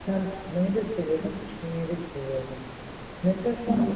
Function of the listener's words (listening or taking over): listening